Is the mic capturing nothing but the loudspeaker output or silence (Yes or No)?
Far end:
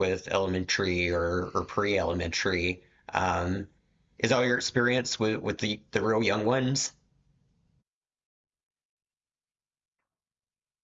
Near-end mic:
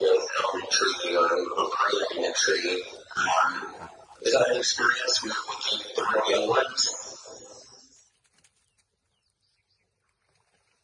Yes